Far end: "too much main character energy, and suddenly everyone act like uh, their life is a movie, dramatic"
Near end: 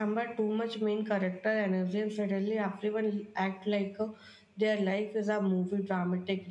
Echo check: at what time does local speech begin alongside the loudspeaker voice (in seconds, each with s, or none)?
none